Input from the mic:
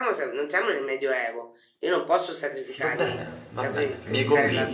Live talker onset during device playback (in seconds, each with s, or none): 2.8 s